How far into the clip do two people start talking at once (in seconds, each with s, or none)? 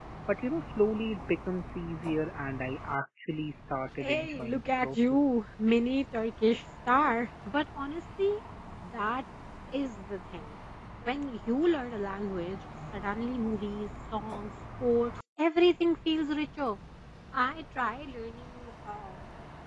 4.0 s